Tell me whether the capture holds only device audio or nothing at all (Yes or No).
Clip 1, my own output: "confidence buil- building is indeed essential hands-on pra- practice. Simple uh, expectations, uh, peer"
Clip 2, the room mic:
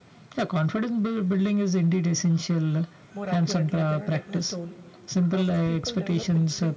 No